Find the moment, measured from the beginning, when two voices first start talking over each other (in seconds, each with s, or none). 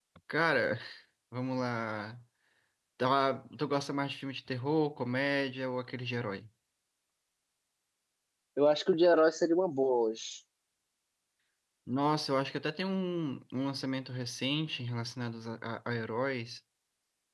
none